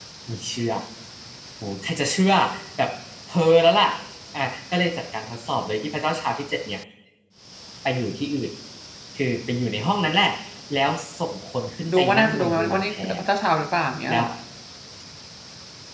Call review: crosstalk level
present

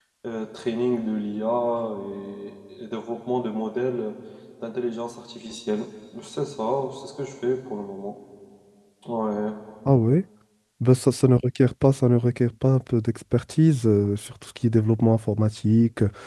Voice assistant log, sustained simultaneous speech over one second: none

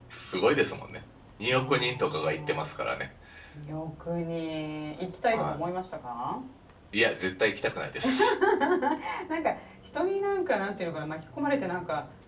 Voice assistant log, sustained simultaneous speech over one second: present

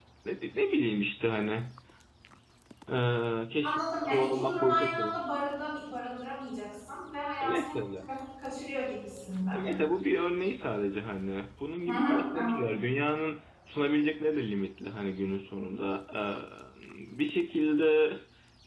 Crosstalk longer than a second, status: present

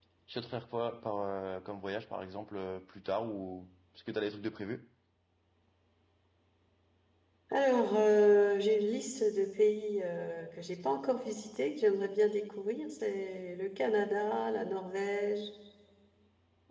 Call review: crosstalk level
none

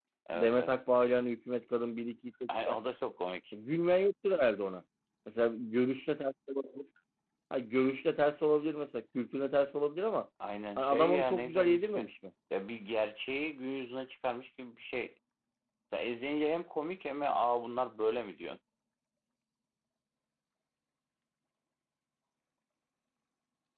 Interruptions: present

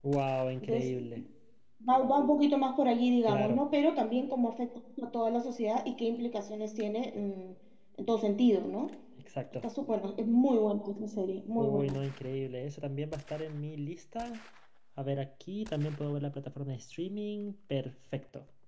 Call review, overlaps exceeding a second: none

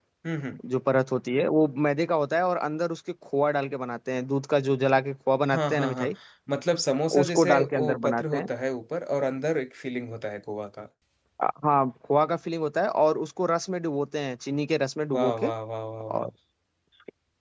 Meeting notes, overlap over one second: present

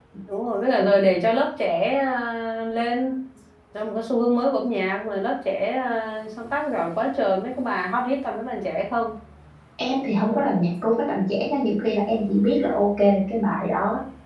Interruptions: none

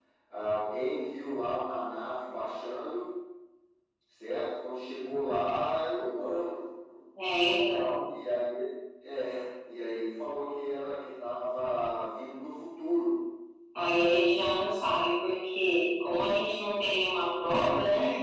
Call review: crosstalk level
none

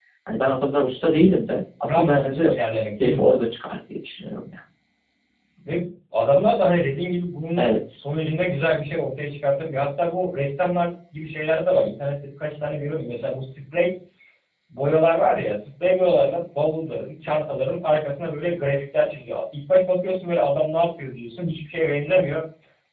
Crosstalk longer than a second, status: present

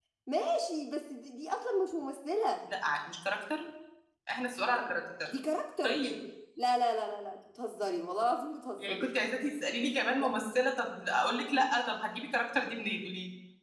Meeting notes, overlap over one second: none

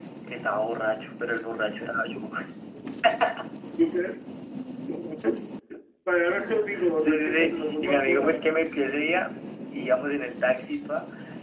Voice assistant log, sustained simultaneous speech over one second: present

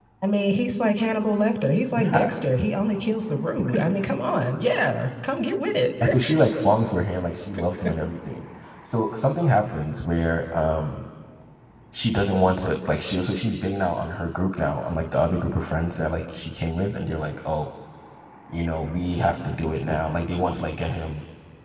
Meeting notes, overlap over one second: none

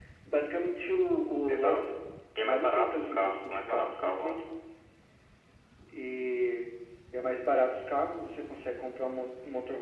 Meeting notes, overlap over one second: present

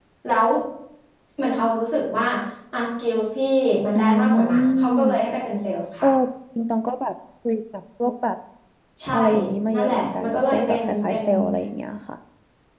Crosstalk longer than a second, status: present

